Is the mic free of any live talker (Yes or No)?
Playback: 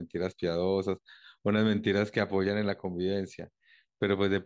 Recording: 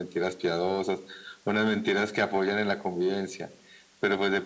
Yes